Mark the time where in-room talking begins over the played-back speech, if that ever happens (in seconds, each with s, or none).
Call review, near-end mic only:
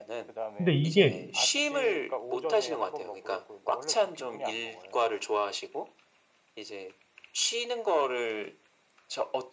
0.6 s